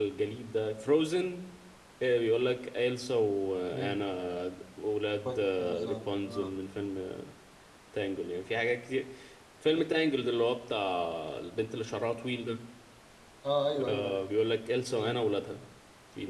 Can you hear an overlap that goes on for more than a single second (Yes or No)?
Yes